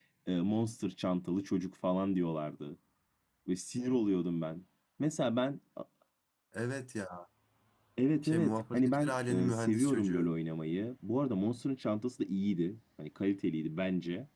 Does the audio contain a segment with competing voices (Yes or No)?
Yes